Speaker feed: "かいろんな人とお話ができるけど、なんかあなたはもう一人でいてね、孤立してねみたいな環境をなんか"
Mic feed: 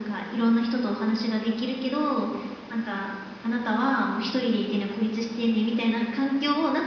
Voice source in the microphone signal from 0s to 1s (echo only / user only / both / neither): echo only